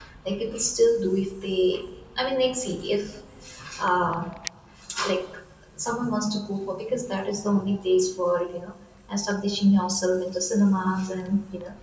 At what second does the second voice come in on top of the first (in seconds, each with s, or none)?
none